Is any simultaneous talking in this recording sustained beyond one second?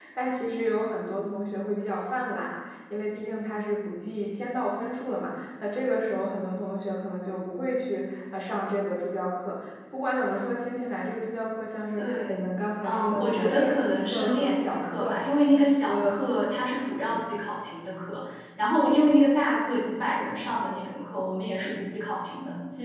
Yes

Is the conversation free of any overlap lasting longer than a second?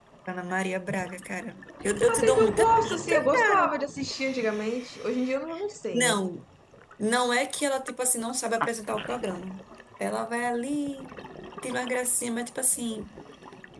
No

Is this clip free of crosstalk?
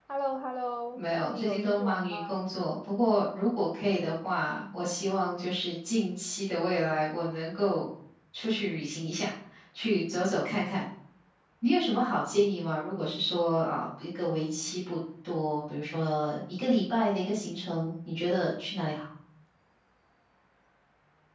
No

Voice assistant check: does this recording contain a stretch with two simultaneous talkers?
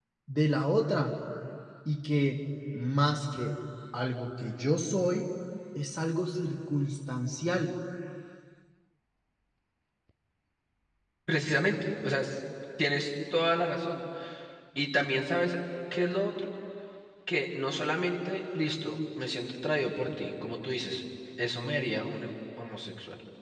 No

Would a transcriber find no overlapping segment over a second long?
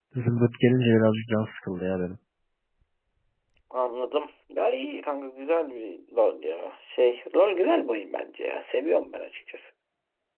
Yes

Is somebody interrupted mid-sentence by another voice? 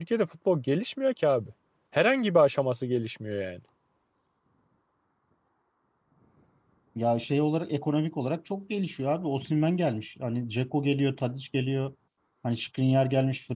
No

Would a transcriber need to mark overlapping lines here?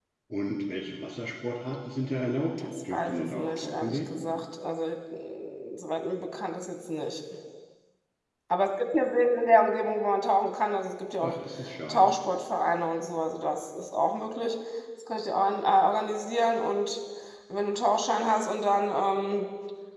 Yes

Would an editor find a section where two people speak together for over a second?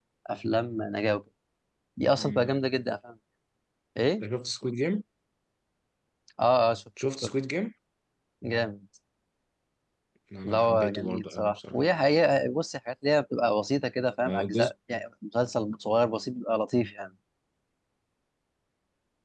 Yes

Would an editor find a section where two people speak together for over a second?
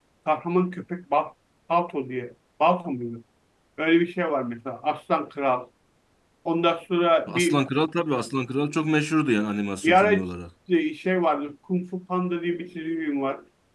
No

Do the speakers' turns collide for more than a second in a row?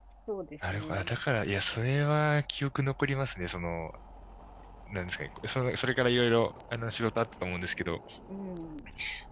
No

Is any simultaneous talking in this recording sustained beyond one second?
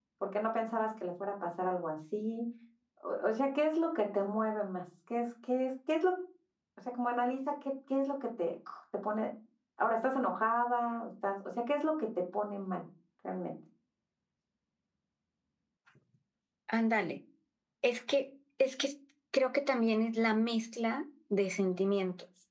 No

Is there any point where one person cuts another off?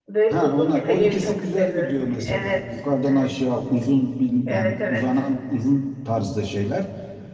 Yes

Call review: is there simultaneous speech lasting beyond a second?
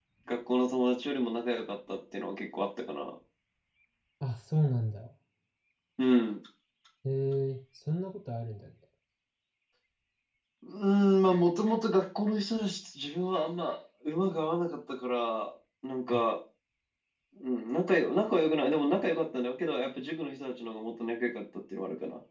No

